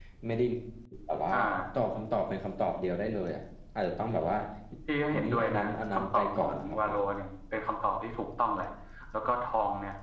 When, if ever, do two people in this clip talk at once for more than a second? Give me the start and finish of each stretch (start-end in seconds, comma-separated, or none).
5.1-7.0